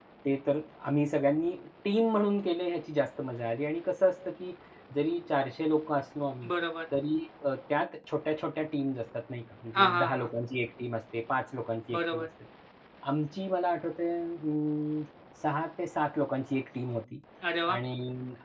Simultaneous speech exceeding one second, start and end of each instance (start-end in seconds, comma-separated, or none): none